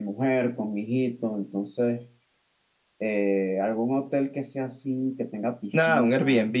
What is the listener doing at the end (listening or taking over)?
taking over